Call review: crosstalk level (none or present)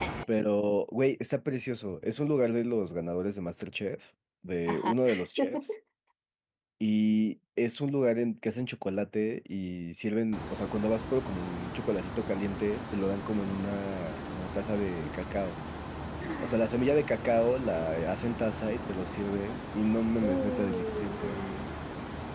present